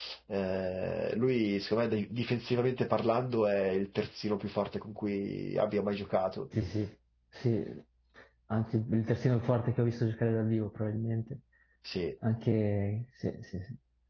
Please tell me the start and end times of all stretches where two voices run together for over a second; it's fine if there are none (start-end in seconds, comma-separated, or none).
none